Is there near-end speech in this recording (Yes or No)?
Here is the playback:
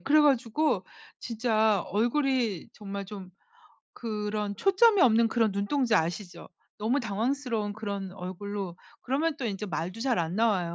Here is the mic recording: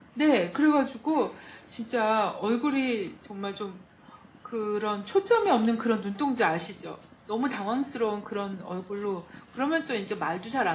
No